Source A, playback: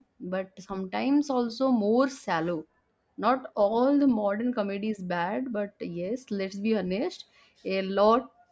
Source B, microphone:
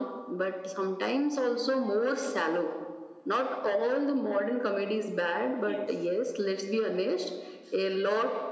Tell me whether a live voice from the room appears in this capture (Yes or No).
Yes